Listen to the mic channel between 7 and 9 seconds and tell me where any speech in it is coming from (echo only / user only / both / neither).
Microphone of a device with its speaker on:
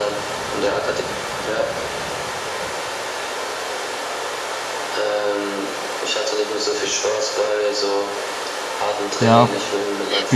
echo only